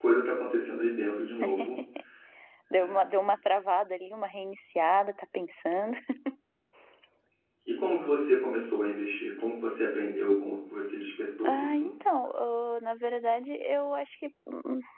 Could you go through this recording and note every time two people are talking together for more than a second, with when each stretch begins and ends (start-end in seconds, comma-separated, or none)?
none